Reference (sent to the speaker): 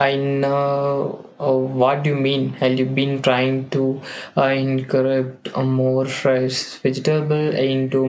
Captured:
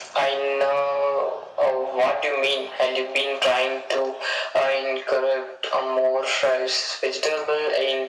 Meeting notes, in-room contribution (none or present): none